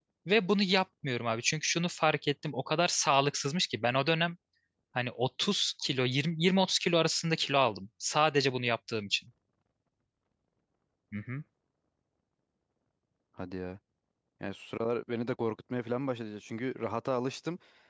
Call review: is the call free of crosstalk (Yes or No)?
Yes